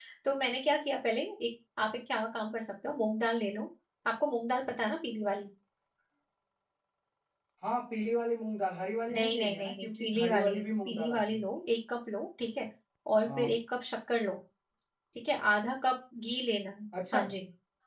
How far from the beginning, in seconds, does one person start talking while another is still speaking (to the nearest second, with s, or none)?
9 s